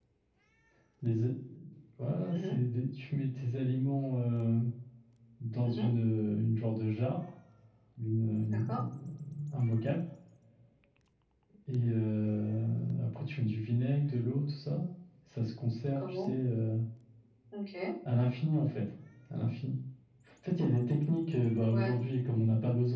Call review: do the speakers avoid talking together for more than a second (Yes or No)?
Yes